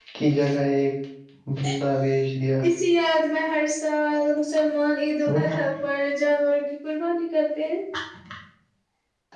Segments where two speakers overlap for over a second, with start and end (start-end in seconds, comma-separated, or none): none